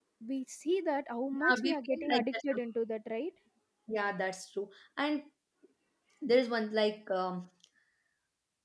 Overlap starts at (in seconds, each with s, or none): 1.3 s